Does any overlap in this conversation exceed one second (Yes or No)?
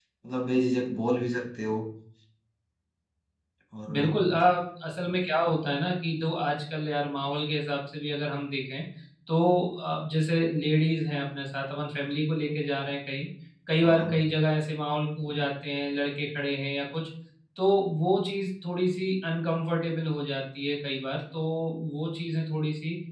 No